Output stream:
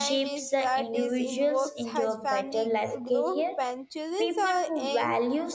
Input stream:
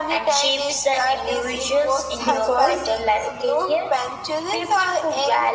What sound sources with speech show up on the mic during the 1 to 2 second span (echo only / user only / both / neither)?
echo only